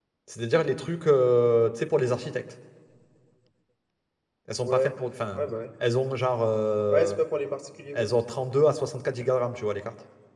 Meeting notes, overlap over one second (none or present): none